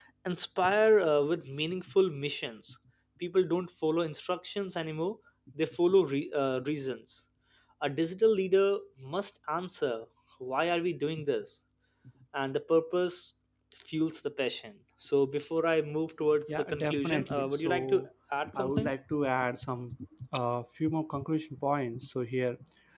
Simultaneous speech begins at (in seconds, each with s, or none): 16.5 s